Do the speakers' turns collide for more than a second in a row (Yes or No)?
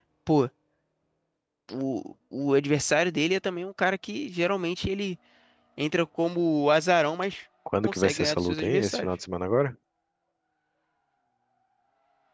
Yes